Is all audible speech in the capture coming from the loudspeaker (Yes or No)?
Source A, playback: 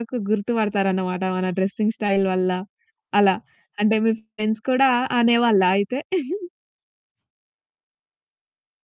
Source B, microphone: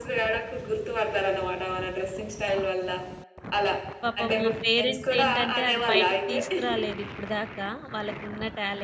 No